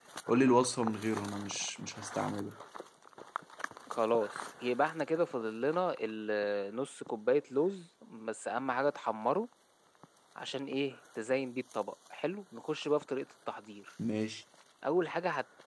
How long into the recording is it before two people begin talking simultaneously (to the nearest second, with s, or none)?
none